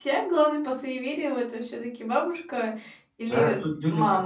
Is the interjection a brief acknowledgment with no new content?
No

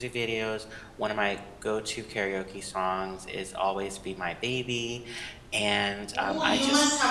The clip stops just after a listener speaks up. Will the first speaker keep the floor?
No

